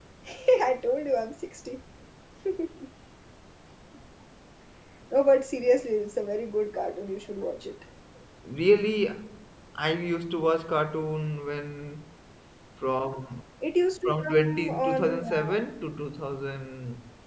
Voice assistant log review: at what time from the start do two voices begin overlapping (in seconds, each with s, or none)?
14.1 s